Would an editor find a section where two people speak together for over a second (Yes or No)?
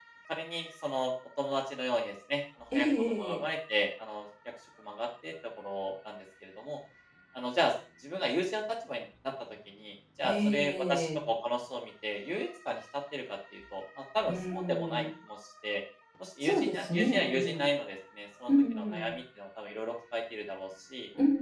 Yes